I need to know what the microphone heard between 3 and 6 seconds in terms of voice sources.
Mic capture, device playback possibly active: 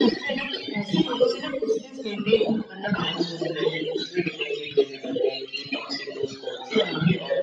echo only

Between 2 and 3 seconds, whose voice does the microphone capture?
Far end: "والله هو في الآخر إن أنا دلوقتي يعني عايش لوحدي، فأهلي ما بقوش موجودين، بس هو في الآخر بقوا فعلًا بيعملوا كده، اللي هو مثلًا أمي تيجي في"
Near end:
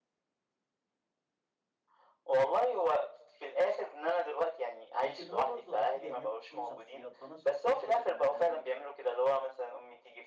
echo only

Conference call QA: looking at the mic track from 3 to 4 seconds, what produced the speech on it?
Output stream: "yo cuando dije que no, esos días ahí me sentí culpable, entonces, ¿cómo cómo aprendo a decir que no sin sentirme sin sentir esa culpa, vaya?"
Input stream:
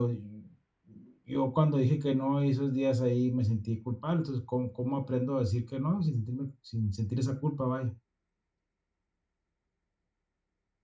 echo only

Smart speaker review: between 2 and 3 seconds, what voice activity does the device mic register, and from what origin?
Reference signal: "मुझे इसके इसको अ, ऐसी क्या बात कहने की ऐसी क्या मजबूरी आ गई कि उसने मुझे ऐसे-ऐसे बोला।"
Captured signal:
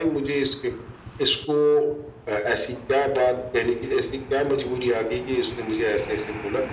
echo only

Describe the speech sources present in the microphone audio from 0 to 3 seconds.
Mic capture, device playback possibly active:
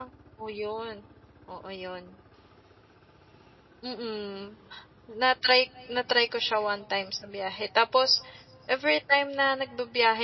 user only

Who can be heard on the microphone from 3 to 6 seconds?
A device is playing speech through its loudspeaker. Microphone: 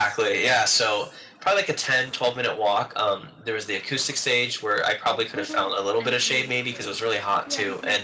both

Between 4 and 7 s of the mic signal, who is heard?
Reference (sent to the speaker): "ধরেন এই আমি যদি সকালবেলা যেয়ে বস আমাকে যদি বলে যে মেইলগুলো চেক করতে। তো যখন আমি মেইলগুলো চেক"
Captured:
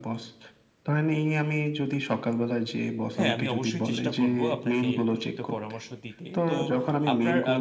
both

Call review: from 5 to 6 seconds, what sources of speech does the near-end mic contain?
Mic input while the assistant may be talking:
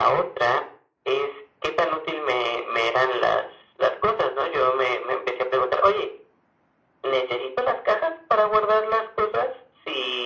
echo only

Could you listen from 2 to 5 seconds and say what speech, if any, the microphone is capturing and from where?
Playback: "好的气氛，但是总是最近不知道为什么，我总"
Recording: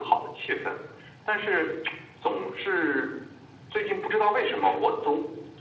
echo only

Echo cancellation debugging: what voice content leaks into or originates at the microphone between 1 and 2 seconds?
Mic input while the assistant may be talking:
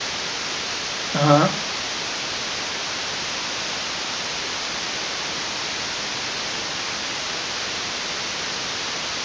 user only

